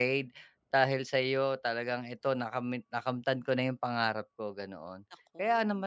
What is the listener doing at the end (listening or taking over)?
listening